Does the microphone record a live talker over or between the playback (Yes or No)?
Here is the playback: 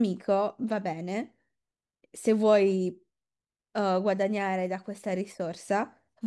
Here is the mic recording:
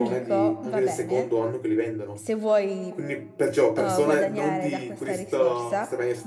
Yes